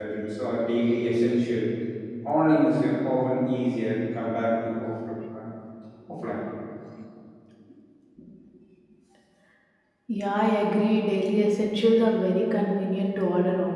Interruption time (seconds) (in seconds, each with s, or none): none